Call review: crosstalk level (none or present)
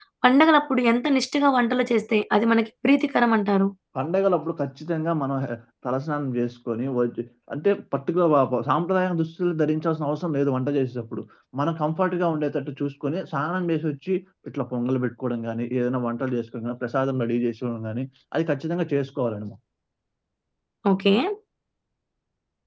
none